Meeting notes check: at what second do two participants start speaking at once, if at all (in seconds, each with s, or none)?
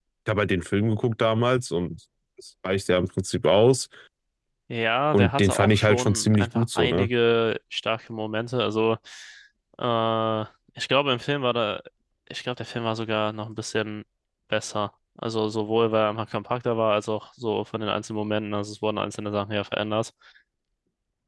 5.1 s